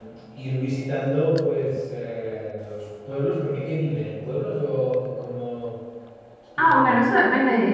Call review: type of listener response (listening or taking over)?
taking over